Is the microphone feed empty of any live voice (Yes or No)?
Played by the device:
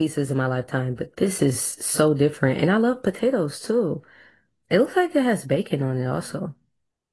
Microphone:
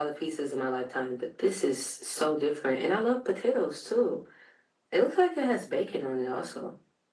Yes